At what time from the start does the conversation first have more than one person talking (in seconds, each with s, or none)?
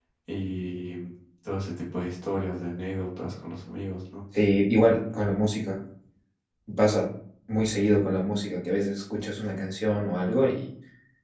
none